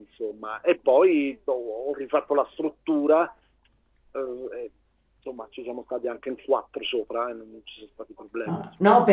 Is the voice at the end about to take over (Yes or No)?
Yes